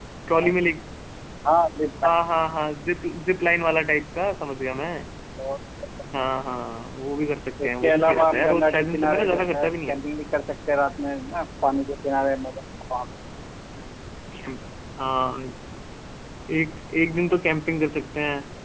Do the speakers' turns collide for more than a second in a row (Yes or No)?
Yes